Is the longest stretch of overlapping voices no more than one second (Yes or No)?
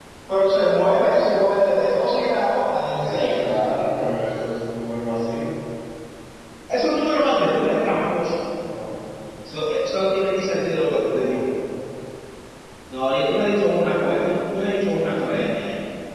Yes